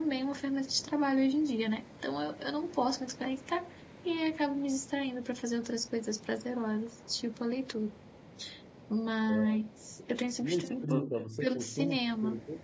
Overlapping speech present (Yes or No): Yes